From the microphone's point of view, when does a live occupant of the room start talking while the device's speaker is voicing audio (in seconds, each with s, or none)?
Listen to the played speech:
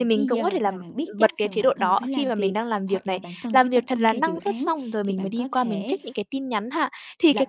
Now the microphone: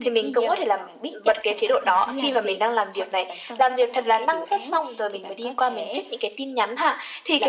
none